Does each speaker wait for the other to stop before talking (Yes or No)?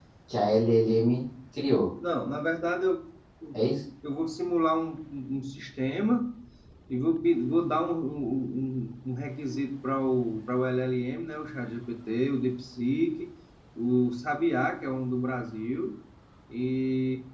Yes